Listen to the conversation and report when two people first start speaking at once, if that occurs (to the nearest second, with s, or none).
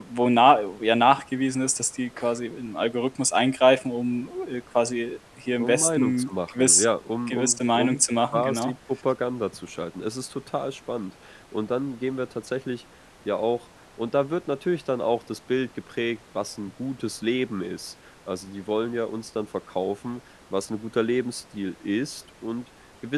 6 s